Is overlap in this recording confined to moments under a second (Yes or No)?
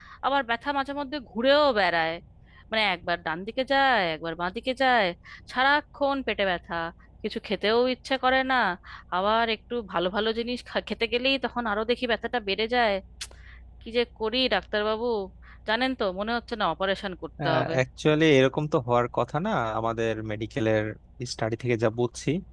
Yes